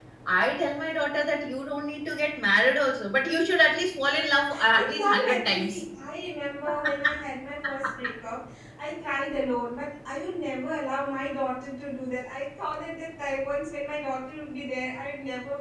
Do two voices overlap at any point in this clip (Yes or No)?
Yes